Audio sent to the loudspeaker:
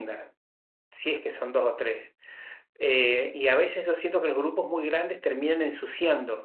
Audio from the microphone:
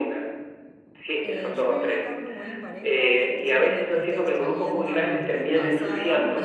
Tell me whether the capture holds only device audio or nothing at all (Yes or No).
No